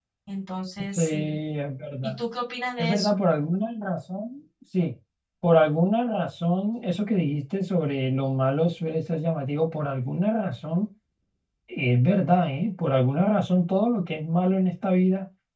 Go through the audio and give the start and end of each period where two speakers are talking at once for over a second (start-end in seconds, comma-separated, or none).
none